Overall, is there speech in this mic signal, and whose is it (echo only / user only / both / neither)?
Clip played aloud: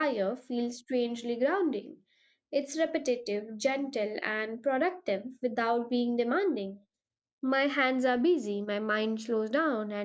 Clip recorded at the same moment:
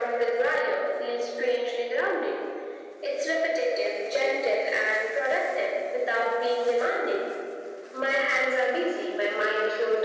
echo only